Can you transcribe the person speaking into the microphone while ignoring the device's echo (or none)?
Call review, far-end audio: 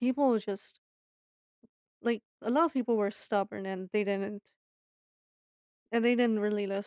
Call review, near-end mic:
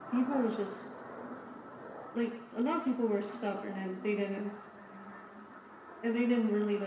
none